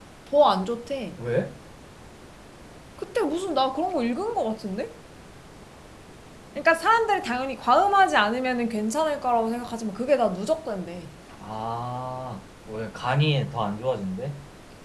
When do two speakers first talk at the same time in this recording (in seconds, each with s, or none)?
none